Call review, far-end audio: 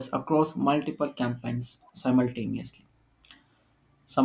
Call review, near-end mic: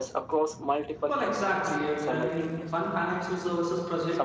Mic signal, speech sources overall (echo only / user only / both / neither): both